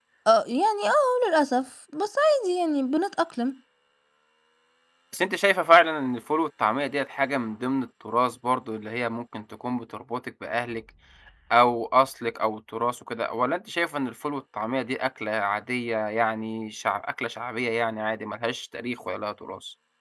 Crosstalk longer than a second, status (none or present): none